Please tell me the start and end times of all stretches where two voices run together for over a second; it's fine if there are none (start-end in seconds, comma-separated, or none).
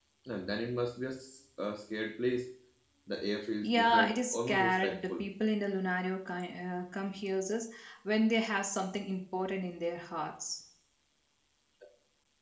3.6-5.3